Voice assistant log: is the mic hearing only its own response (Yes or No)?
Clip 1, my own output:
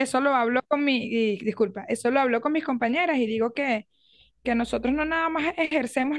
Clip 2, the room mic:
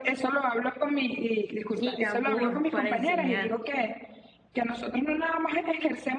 No